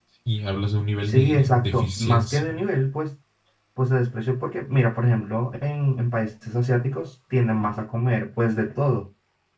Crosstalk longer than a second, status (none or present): present